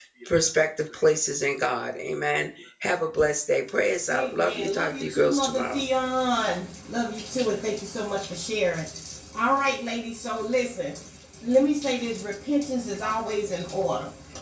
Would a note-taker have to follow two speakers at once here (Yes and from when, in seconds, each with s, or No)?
Yes, from 4.1 s